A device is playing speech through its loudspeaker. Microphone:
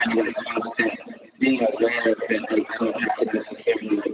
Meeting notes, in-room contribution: none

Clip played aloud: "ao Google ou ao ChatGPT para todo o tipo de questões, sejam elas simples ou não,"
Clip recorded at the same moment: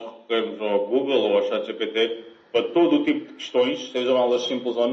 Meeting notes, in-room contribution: none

